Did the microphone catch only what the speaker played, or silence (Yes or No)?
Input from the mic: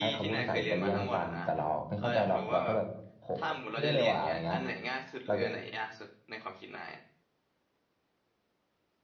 No